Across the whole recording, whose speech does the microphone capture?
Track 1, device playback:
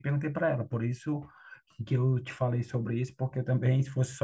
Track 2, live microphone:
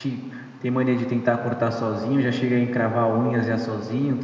user only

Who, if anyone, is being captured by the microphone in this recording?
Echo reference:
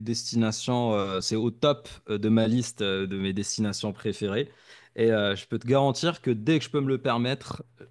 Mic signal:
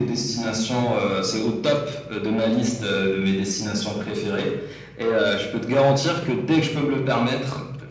echo only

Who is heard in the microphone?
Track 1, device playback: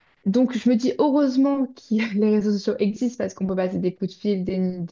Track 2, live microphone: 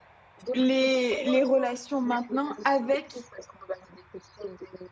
both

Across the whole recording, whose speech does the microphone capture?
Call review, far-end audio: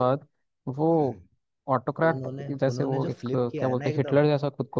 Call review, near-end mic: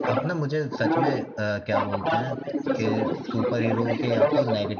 both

